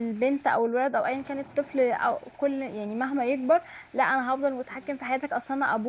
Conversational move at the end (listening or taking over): listening